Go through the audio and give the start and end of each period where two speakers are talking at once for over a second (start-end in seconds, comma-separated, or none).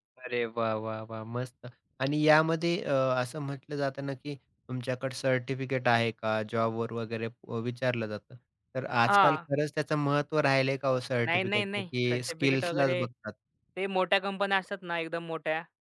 11.3-12.9